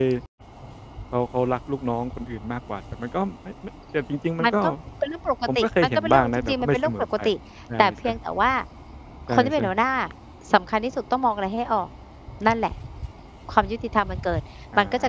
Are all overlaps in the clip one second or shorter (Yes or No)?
No